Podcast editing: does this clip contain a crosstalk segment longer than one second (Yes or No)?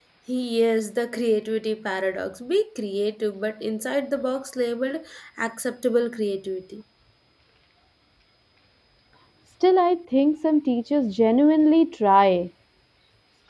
No